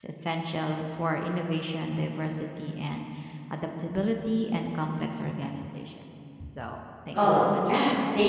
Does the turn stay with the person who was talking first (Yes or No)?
No